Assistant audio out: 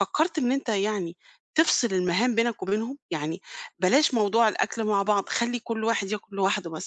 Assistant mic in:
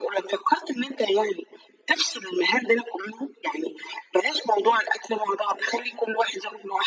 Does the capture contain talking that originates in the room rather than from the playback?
No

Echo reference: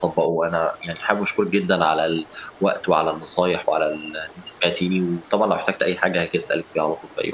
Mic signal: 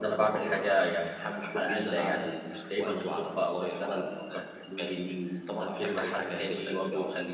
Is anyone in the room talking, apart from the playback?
Yes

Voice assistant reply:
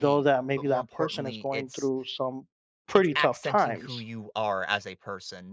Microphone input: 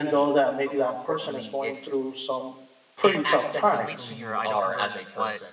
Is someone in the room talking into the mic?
Yes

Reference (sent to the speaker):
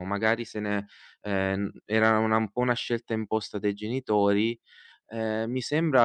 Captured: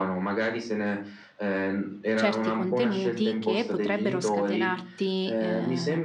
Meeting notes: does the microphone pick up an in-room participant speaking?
Yes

